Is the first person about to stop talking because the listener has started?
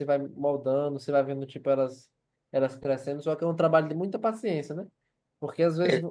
No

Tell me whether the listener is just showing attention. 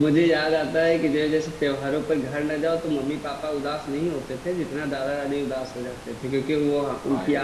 Yes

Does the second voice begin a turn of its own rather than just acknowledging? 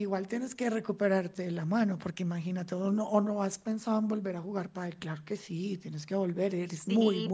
Yes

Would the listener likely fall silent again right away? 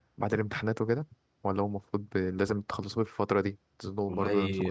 No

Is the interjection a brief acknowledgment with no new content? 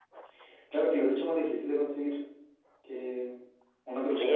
No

